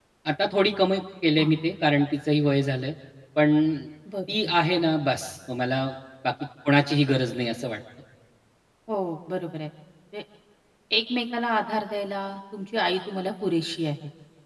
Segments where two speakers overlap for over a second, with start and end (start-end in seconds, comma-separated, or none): none